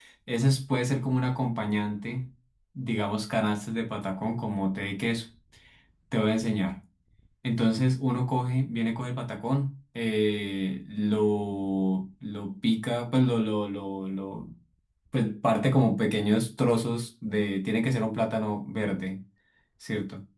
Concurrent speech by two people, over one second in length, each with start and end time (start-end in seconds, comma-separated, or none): none